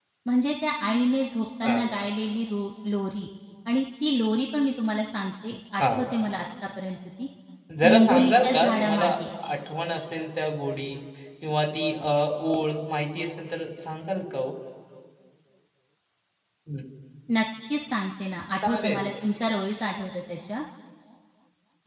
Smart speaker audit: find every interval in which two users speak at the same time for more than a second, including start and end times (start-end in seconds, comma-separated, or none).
7.8-9.1